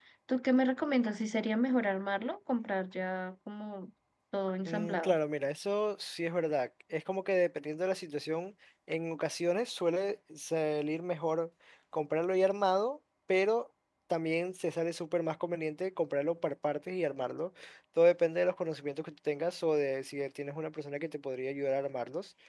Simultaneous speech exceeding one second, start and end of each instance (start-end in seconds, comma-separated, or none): none